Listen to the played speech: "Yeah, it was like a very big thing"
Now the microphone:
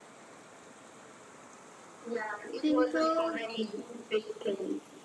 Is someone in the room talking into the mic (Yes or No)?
Yes